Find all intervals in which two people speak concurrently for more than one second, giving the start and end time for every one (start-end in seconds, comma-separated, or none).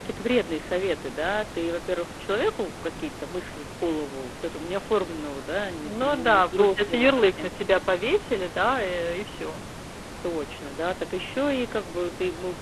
5.8-7.5